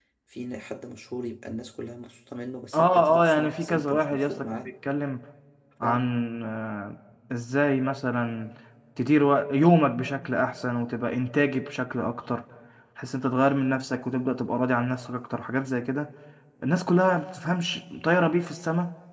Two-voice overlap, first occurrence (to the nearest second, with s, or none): 3 s